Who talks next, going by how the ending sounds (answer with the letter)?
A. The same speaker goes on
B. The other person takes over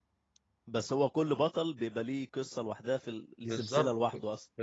B